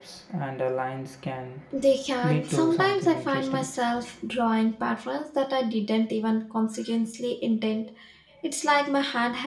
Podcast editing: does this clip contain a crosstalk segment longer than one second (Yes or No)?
Yes